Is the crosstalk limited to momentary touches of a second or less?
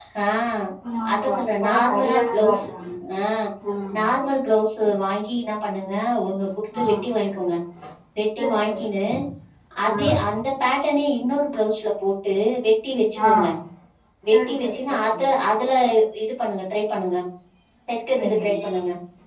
No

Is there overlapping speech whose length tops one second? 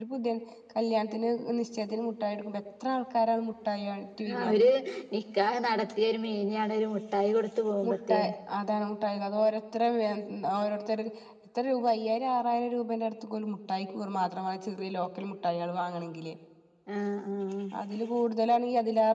No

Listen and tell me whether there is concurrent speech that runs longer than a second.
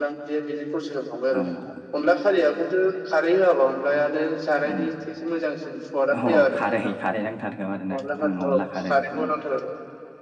Yes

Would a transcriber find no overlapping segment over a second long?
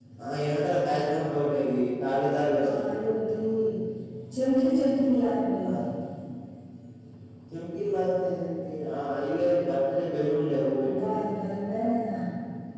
Yes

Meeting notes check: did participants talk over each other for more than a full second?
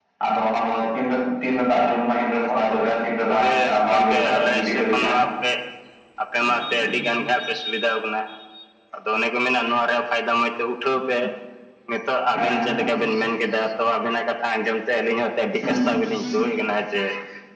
Yes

